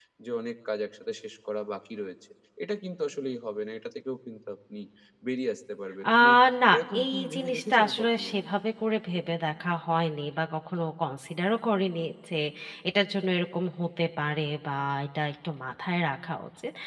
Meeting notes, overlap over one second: present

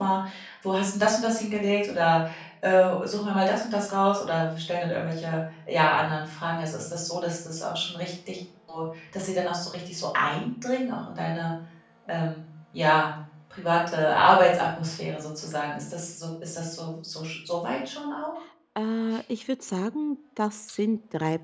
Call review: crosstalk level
none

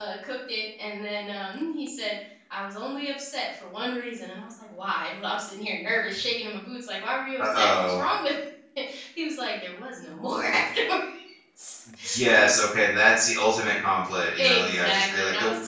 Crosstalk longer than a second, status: present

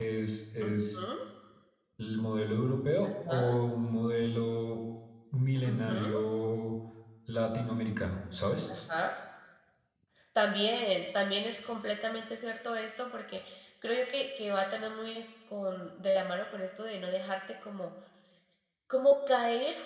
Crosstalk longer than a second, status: none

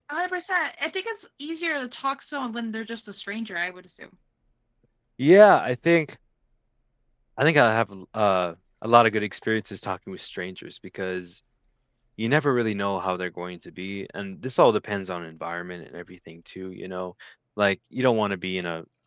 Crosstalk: none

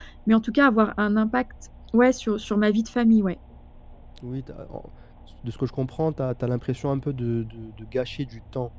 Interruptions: none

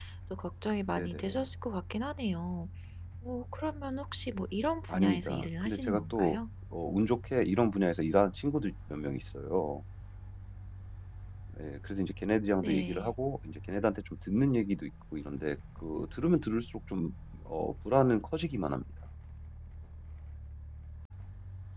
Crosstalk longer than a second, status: present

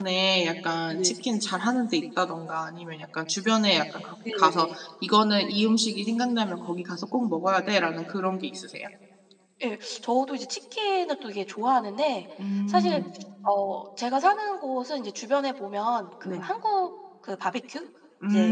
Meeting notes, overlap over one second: none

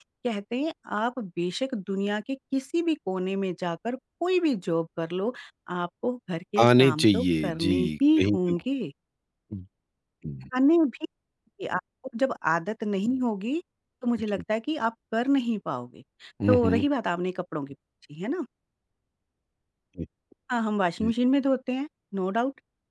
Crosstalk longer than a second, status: present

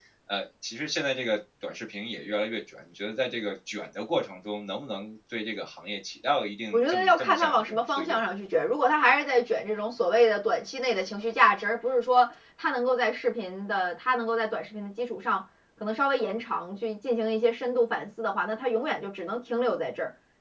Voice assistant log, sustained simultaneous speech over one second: present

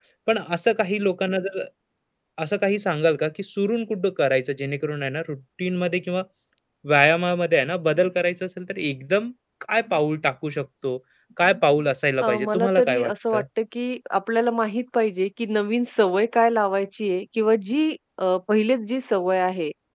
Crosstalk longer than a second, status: present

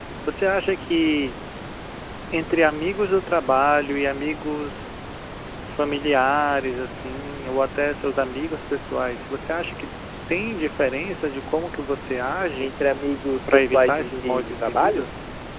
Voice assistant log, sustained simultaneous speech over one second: present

